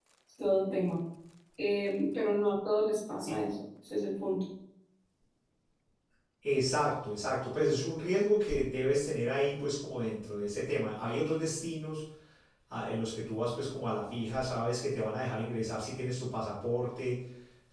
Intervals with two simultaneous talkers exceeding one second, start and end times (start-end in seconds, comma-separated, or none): none